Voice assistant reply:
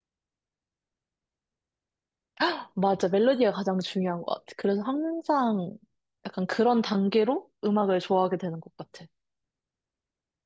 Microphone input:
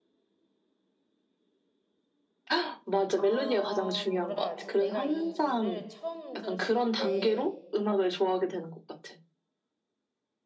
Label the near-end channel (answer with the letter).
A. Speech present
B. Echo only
A